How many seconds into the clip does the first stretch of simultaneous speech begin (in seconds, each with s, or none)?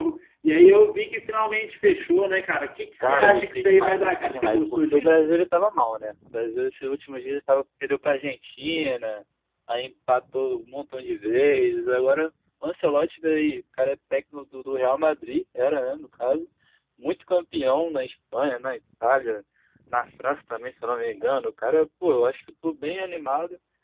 3.0 s